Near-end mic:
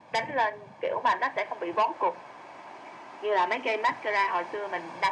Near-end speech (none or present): none